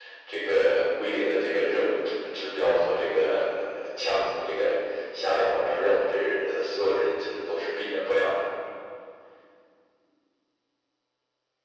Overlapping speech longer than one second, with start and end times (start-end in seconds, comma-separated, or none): none